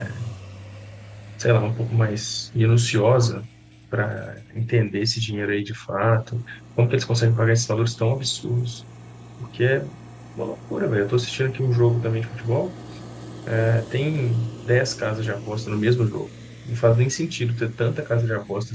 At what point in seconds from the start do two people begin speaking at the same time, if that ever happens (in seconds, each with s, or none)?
none